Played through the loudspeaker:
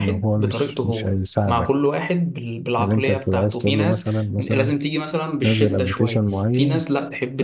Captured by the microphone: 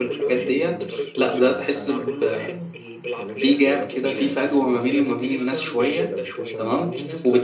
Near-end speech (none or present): present